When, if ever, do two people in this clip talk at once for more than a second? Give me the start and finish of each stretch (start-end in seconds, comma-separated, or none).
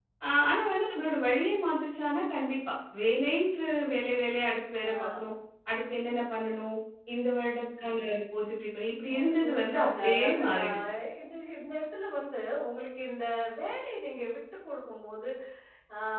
9.1-10.8